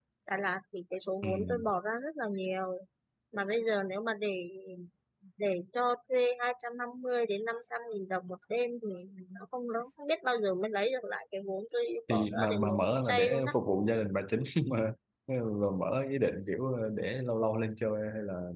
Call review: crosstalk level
present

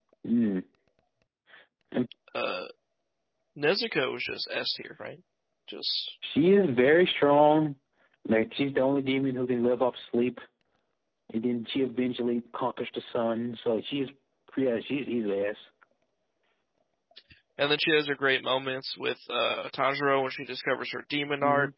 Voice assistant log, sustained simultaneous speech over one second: none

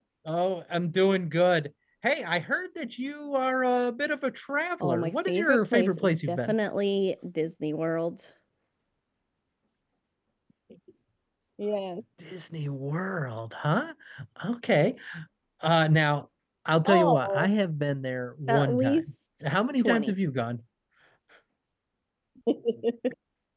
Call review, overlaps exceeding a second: present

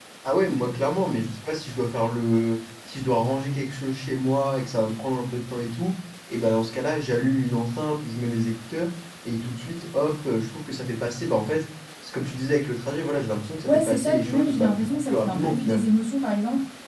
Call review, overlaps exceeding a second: present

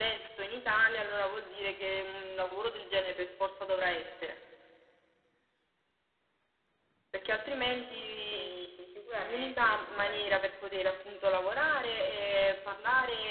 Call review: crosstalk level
present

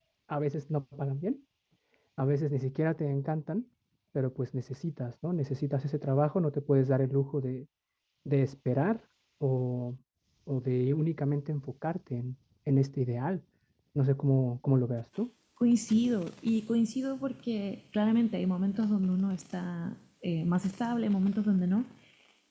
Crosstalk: none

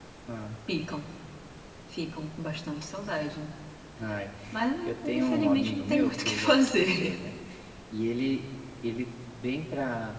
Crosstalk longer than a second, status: present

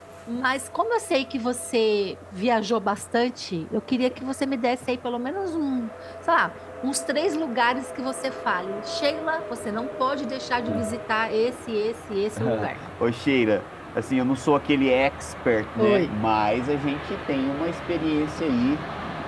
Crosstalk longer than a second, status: none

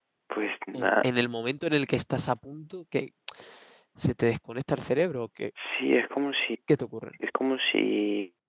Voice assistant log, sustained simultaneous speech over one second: none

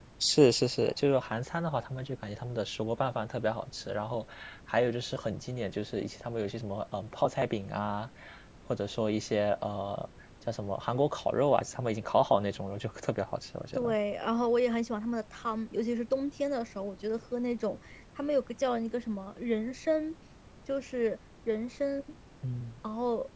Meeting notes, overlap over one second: none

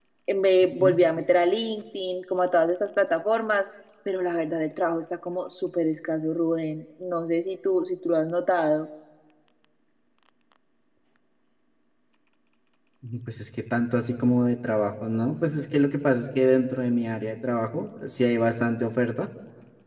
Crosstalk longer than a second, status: none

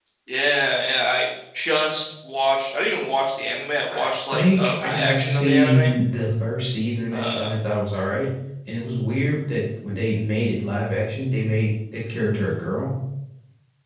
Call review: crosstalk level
present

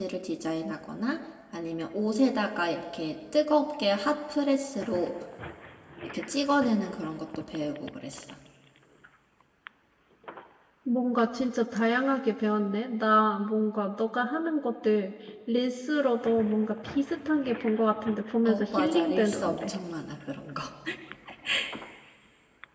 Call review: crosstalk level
present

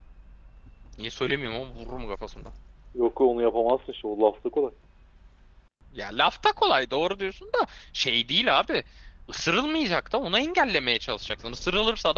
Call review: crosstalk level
none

